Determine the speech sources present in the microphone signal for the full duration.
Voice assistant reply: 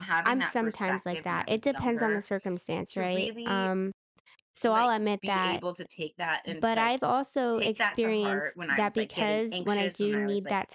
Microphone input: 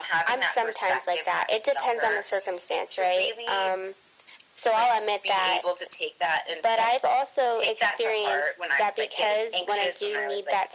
echo only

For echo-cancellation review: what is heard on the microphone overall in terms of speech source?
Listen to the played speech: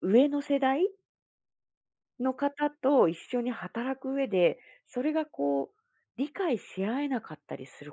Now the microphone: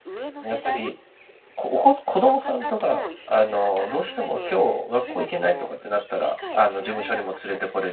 both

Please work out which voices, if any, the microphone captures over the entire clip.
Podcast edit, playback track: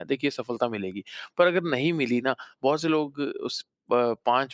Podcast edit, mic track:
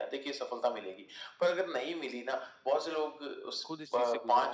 both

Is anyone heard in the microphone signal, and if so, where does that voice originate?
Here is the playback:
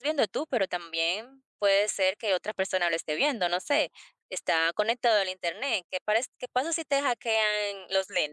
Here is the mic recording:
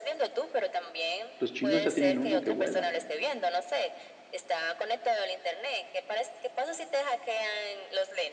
both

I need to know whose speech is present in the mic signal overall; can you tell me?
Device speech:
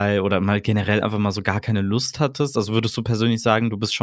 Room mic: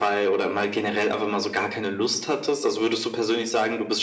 echo only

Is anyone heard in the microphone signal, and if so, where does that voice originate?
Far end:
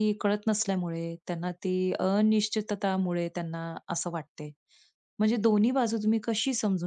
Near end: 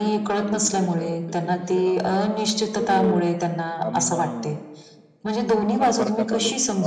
both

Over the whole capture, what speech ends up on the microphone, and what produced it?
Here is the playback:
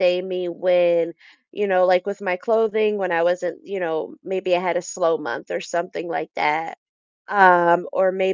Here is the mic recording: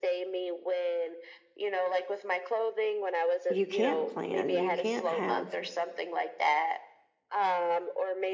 both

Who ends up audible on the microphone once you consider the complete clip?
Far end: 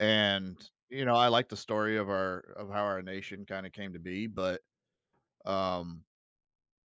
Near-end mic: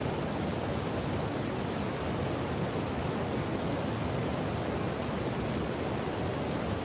neither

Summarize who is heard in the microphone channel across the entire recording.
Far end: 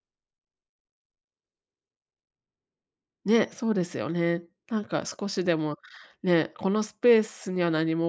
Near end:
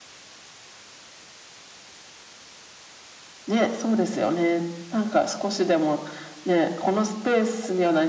echo only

